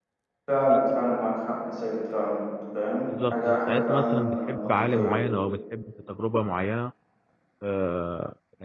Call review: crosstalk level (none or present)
present